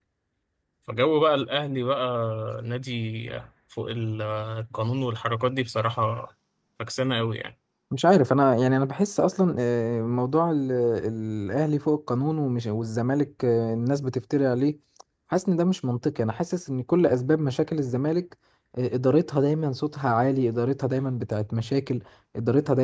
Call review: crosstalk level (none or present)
none